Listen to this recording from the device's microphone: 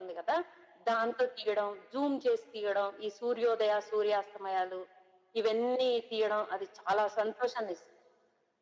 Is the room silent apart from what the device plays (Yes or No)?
Yes